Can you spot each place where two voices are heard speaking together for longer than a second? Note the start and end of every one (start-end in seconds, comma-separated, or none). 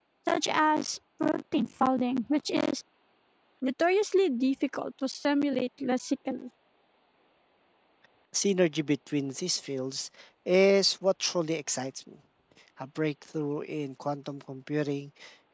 none